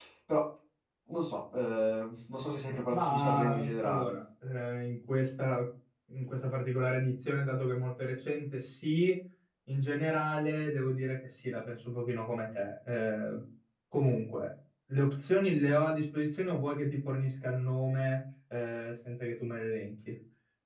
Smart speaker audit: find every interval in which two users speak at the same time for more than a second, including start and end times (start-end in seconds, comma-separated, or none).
2.9-4.1